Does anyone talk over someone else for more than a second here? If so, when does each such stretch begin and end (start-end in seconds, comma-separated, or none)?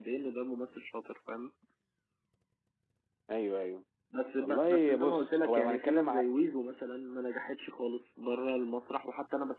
4.4-6.3